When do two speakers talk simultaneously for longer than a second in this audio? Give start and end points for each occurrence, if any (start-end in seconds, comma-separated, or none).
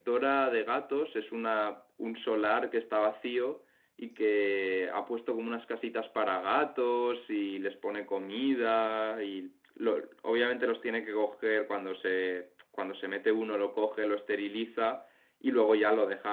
none